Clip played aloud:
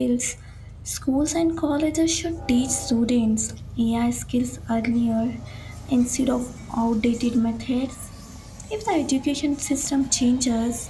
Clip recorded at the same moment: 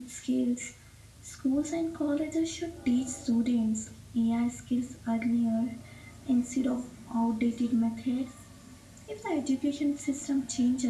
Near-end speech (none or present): none